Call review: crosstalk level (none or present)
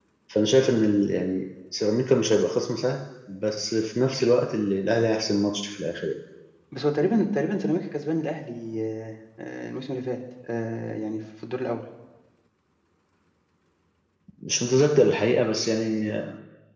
none